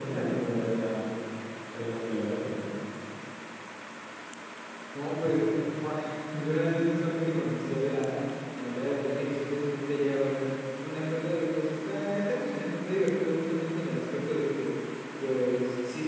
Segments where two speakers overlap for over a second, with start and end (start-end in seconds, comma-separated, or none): none